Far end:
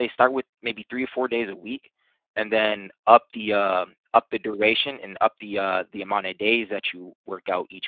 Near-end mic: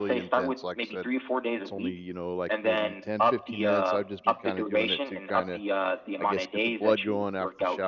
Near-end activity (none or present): present